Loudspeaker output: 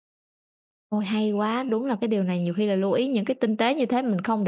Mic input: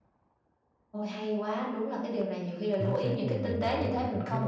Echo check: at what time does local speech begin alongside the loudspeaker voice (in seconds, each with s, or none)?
2.8 s